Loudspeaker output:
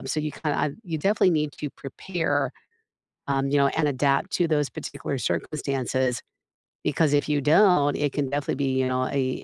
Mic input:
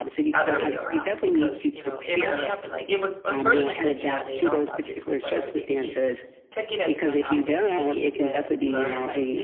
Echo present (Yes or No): Yes